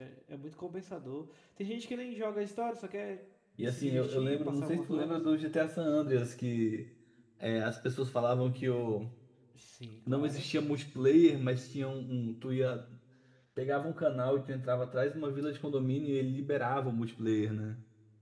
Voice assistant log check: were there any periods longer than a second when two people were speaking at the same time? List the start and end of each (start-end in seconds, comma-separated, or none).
3.6-5.2